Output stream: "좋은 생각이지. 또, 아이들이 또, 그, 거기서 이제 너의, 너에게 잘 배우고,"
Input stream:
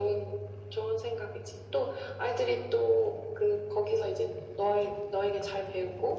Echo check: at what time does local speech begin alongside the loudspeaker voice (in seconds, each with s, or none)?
none